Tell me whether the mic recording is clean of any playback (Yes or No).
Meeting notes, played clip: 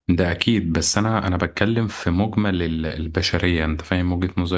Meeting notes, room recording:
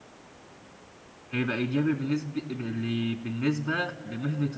Yes